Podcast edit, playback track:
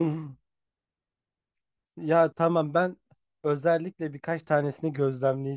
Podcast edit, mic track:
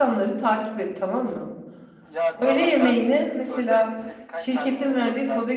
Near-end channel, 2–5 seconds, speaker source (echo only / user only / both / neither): both